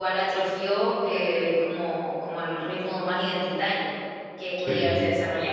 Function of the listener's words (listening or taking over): listening